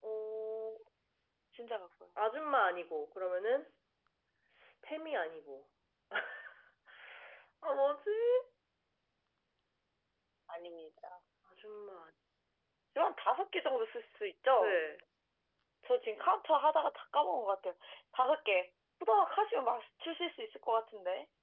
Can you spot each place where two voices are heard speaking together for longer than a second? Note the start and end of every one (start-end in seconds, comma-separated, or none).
none